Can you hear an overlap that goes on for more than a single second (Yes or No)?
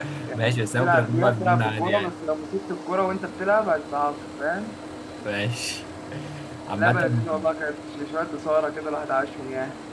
Yes